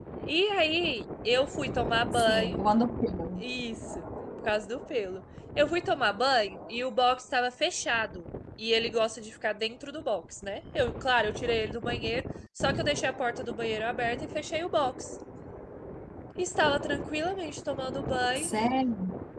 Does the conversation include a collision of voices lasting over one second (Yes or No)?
No